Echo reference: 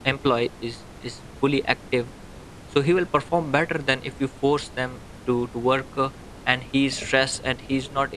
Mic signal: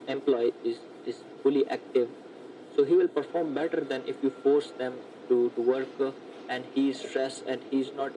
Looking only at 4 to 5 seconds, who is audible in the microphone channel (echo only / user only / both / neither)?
echo only